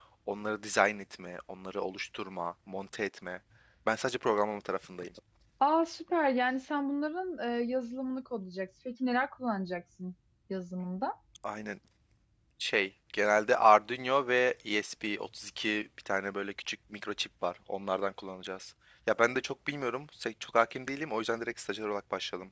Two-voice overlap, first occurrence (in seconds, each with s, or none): none